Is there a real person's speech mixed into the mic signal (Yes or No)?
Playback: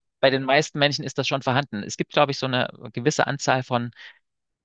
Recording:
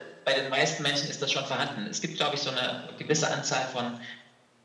No